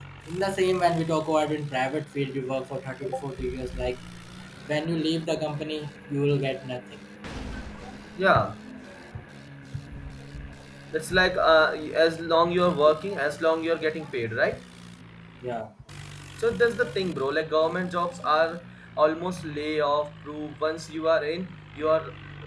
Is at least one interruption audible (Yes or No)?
No